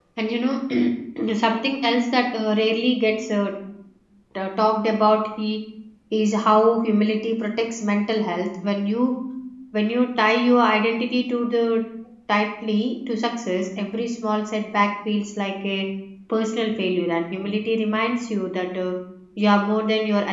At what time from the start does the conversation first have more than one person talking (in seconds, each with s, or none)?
none